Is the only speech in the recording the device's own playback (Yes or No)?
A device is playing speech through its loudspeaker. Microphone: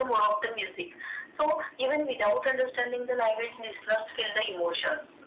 Yes